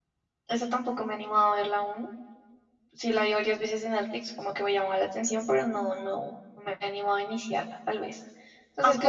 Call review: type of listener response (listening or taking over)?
listening